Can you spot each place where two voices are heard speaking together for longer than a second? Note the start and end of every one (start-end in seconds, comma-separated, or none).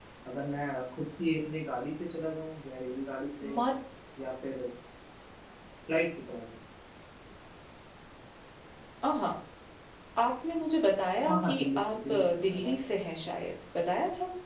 11.2-13.1